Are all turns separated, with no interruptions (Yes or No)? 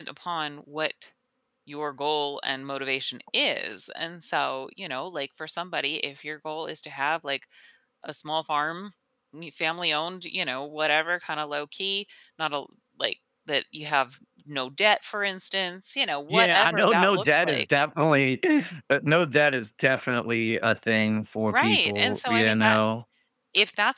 No